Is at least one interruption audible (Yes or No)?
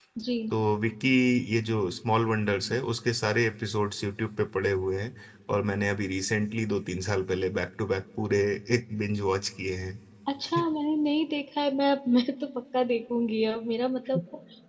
No